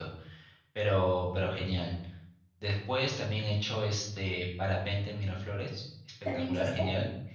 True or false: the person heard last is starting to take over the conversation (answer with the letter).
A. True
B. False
B